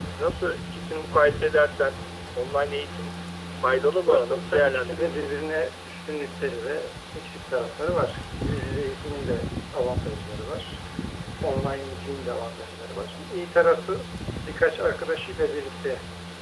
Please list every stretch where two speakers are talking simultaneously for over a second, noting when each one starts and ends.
4.1-5.3

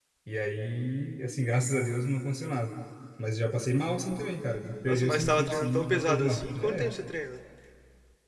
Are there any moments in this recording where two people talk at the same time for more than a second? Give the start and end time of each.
4.8-6.9

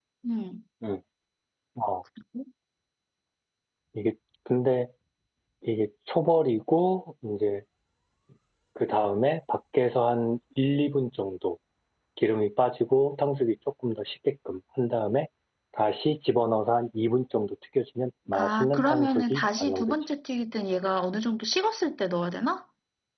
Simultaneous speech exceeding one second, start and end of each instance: 18.3-19.9

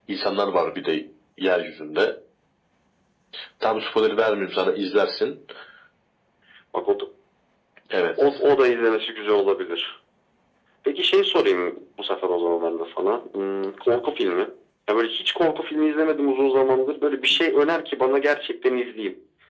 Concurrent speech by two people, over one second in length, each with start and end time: none

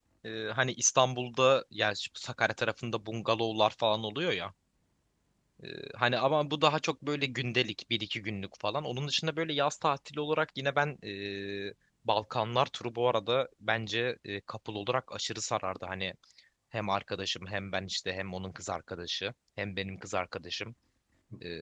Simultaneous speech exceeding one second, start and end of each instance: none

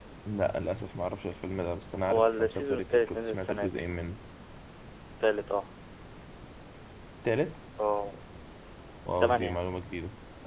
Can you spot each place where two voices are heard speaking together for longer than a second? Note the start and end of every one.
2.0-3.7

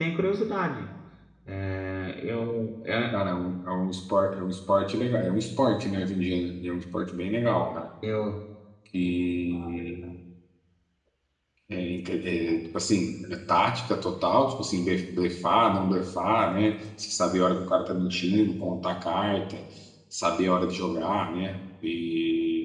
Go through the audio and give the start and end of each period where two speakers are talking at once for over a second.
none

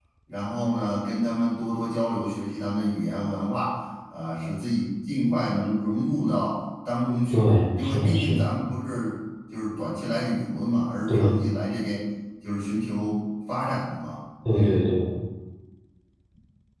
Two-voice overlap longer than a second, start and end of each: 7.3-8.5

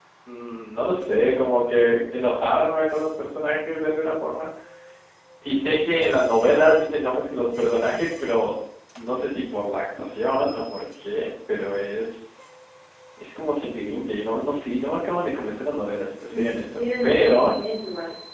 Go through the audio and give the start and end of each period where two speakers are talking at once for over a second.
16.3-17.6

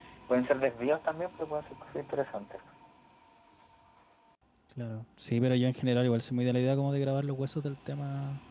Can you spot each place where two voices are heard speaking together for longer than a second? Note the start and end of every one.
none

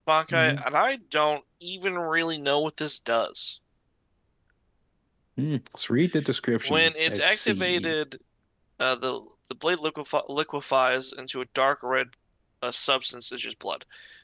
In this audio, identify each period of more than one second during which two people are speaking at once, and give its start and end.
6.6-7.9

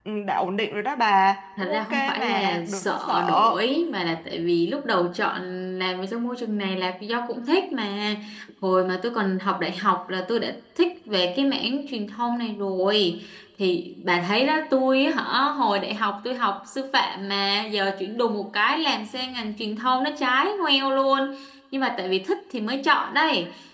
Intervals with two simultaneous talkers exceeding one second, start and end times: 1.6-3.5

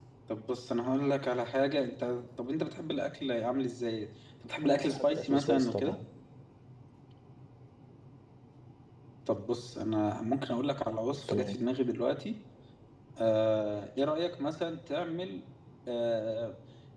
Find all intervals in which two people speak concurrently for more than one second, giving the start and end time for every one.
4.6-6.0

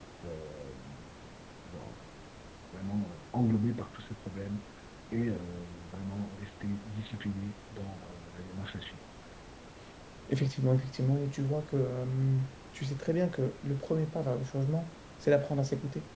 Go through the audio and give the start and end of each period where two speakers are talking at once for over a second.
none

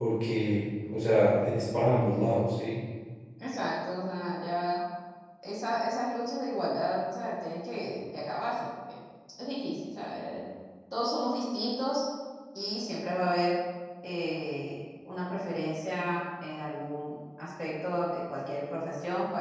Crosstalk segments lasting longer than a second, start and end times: none

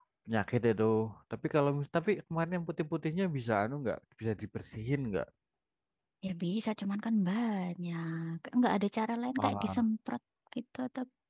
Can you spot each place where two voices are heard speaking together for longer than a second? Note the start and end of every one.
none

